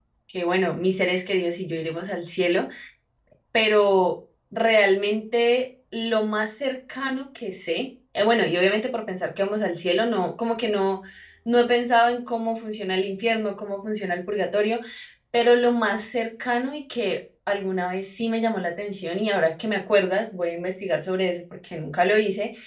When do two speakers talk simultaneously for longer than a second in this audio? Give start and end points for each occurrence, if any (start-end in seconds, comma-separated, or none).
none